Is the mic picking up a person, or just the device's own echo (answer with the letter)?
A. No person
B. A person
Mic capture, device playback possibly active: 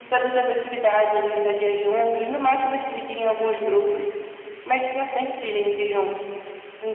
A